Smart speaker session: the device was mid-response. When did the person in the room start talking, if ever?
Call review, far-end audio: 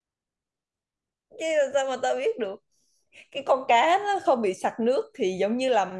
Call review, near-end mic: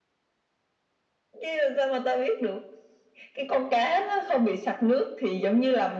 none

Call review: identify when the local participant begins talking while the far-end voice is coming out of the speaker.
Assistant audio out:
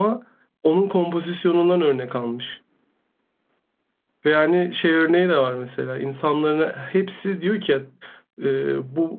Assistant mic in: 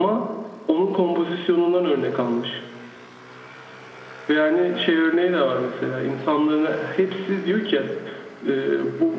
none

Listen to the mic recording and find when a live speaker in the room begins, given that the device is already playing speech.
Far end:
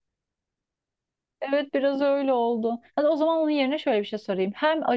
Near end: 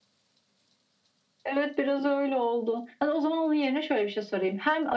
none

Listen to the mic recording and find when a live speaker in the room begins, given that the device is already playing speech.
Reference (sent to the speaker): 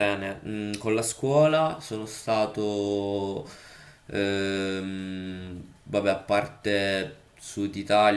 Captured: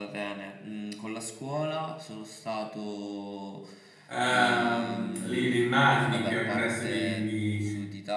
4.1 s

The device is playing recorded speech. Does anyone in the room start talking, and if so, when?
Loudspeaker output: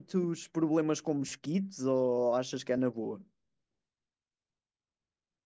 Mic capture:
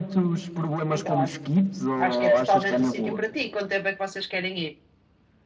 0.9 s

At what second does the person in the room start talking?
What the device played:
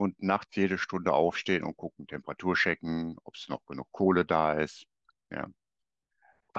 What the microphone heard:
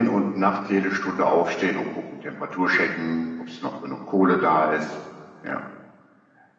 none

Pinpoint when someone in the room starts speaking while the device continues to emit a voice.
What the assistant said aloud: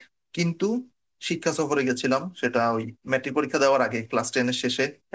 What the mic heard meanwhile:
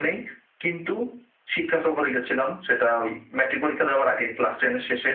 none

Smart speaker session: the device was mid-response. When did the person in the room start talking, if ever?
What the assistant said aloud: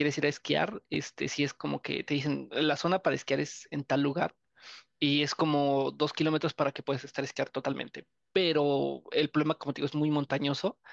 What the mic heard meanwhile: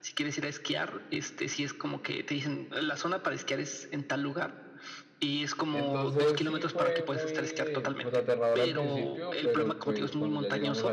5.7 s

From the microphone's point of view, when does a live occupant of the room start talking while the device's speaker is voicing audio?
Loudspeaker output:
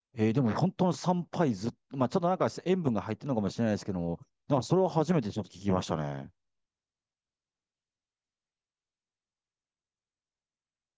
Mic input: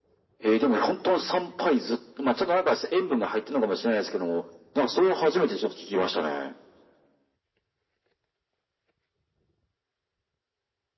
none

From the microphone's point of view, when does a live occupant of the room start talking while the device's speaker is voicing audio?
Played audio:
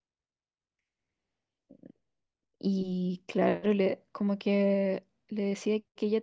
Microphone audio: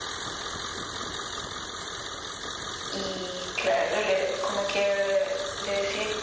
none

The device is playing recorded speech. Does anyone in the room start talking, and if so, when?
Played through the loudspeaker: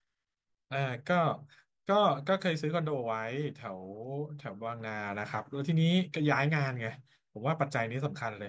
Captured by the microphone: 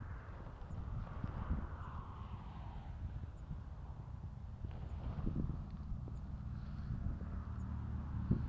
none

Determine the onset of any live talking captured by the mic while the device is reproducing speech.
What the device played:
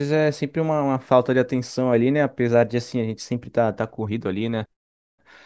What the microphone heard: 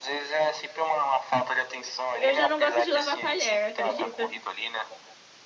2.2 s

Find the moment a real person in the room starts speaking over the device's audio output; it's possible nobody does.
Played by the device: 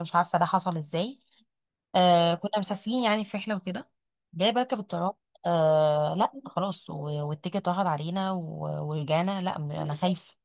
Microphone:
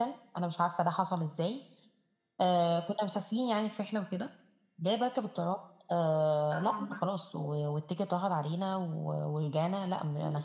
6.5 s

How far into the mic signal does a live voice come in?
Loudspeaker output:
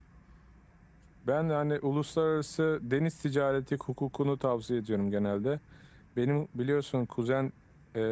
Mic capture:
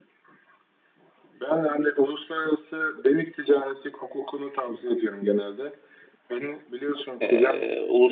7.2 s

